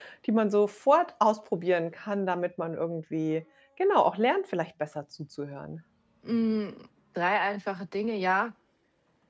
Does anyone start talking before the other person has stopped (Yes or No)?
No